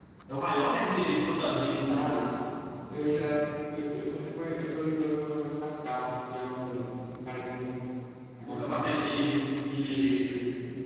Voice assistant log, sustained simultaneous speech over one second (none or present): present